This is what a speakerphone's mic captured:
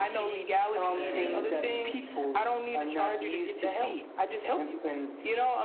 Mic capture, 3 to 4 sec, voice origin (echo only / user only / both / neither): echo only